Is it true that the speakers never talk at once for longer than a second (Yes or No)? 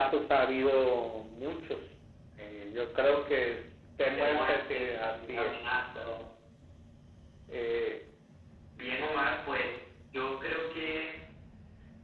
No